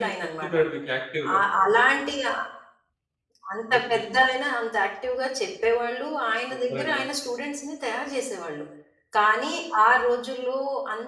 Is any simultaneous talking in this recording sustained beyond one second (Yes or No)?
No